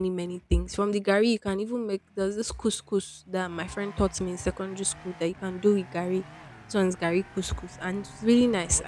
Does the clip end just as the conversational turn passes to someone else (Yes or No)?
No